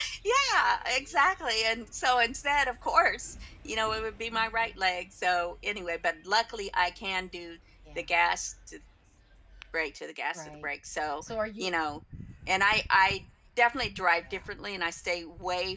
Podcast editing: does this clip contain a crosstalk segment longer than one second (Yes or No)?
No